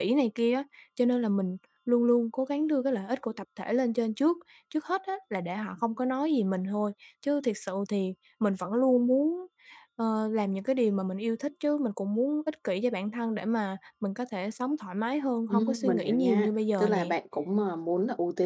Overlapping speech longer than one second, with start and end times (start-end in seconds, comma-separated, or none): 15.5-17.1